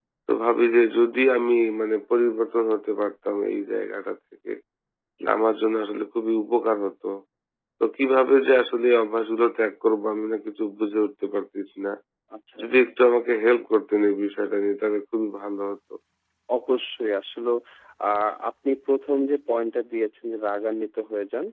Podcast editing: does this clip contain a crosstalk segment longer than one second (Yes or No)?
No